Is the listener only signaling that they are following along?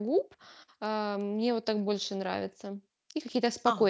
No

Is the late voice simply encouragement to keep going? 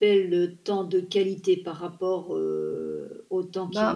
No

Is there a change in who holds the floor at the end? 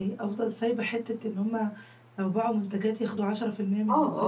Yes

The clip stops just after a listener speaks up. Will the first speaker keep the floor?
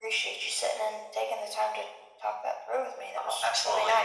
No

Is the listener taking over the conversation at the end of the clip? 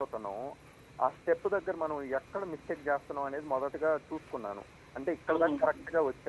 No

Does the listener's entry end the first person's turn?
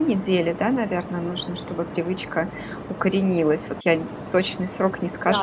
Yes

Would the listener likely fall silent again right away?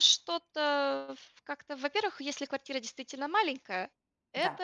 Yes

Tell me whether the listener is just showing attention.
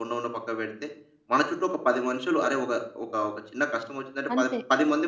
Yes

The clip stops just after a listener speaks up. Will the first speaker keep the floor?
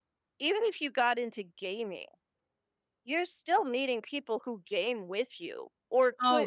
No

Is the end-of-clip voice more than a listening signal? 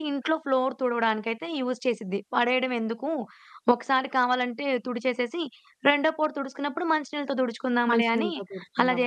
Yes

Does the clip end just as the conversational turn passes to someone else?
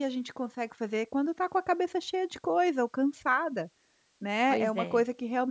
No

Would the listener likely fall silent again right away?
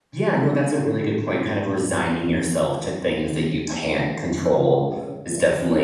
Yes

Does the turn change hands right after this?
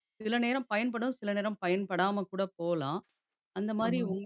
No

